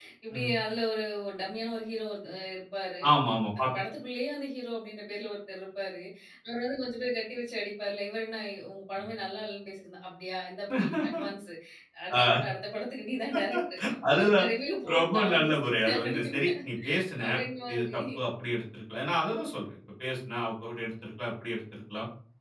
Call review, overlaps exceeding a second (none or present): present